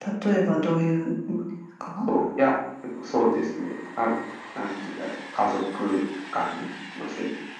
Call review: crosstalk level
none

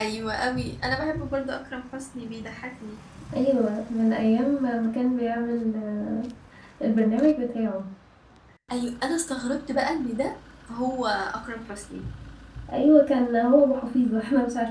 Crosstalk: none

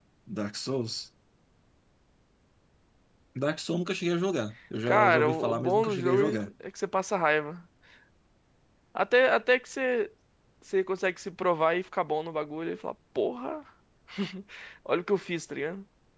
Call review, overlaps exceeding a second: present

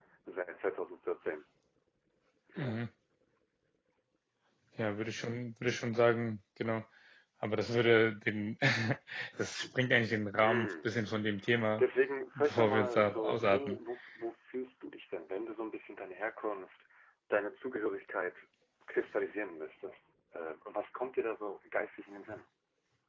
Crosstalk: present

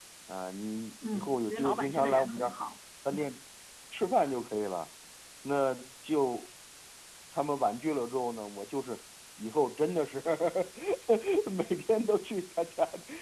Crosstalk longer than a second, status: present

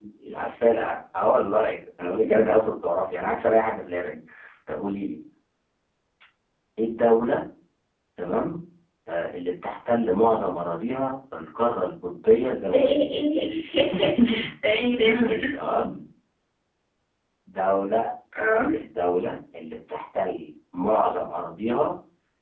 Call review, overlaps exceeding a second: none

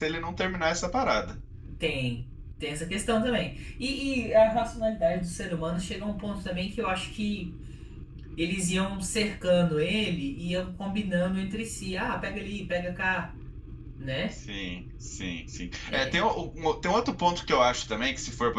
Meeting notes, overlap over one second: none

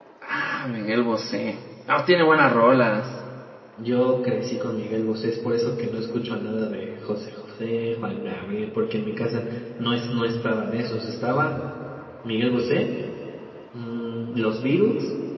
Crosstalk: none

